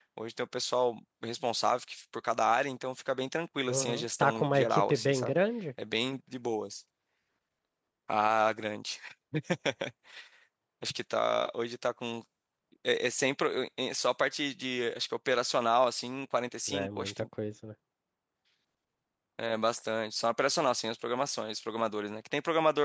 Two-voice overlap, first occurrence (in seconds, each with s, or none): 3.7 s